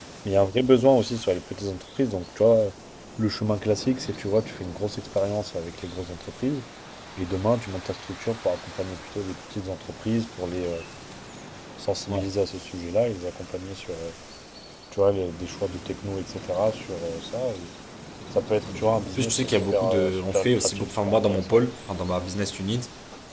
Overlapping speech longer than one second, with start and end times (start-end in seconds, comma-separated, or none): 19.1-21.7